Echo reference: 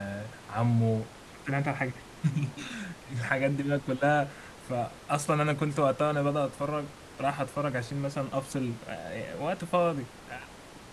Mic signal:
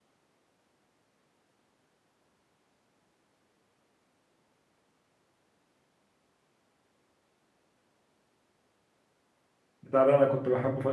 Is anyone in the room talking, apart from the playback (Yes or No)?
Yes